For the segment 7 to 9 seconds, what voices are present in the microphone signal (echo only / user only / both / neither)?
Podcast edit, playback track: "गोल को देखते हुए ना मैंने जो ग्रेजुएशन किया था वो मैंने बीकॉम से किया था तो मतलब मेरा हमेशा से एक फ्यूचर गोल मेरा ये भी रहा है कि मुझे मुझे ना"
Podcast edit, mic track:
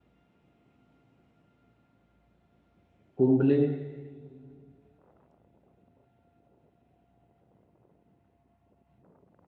neither